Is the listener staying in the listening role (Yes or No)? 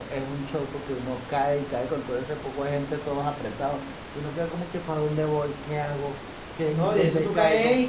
No